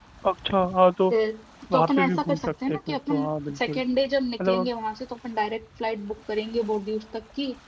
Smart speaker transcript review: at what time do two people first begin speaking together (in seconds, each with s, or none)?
1.7 s